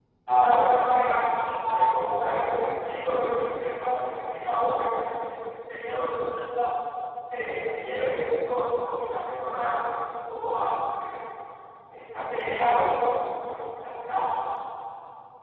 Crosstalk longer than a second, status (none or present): none